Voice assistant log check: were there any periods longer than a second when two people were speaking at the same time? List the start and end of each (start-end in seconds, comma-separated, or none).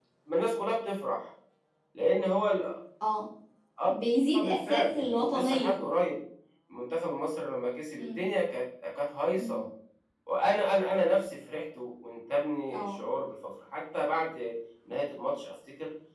4.4-5.8